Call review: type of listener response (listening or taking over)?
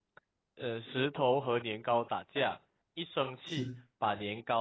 listening